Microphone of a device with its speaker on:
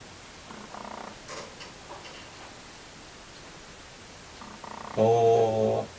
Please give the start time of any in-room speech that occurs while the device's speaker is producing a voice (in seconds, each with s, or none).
5.0 s